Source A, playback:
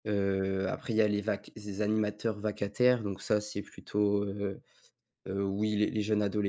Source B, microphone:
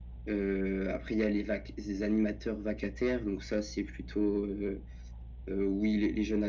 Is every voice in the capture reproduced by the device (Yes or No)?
Yes